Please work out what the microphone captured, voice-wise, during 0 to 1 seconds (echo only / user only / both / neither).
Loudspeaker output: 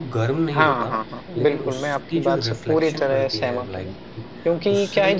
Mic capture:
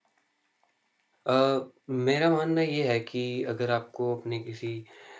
neither